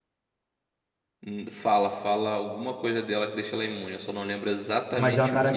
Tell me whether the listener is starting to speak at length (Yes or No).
Yes